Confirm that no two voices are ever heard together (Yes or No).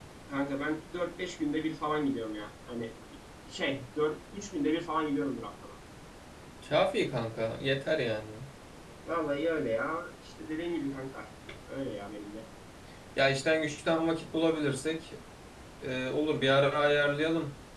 Yes